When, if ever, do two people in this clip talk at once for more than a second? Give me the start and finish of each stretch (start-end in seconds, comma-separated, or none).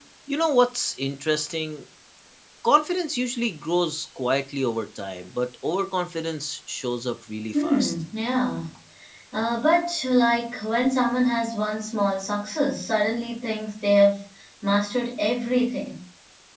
none